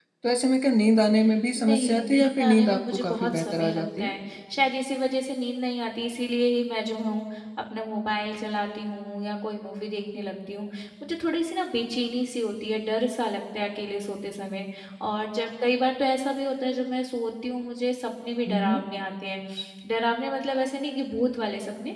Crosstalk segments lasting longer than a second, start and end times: 1.6-4.1

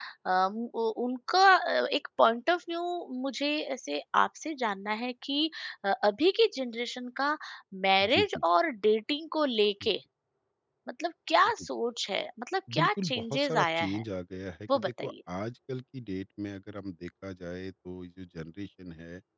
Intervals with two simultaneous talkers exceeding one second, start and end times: 12.8-14.0

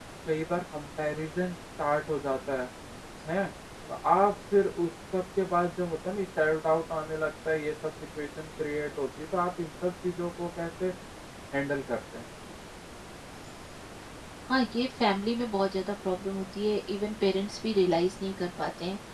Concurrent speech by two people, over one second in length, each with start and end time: none

